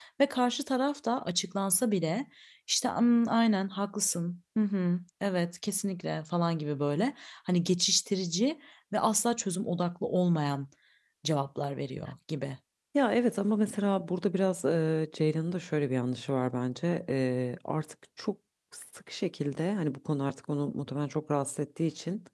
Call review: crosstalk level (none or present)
none